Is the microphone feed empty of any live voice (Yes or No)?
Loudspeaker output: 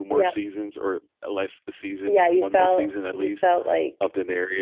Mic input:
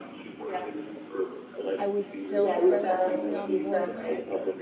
No